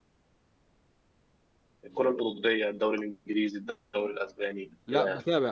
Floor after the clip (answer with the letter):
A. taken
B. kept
A